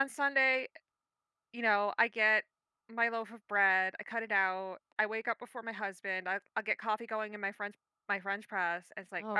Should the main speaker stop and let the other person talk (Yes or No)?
No